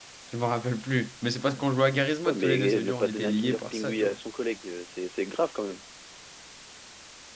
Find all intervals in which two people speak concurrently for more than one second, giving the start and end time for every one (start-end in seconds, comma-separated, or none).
2.2-4.2